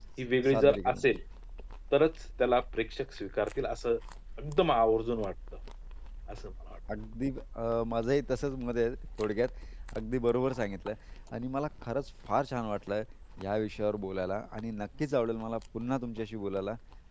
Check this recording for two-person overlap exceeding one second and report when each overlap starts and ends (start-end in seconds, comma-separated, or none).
none